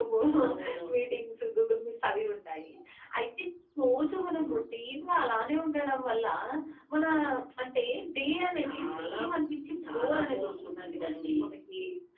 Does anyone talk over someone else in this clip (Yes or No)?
Yes